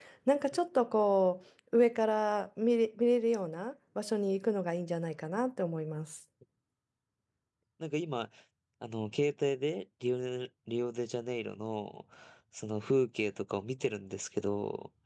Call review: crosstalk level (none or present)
none